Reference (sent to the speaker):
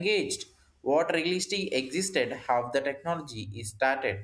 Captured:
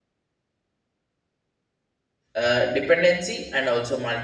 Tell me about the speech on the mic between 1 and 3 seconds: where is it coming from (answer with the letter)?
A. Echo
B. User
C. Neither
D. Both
B